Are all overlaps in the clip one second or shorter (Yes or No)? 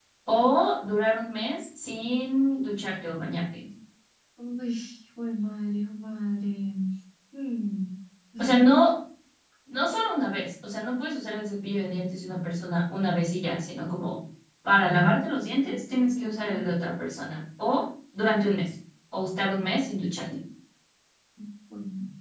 Yes